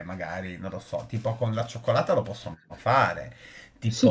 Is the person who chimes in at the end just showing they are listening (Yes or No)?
Yes